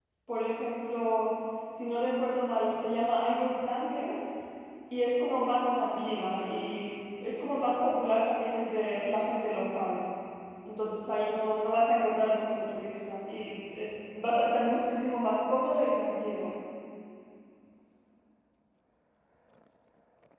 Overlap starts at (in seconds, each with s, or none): none